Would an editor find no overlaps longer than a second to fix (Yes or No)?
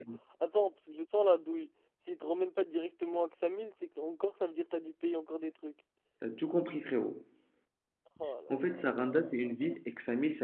No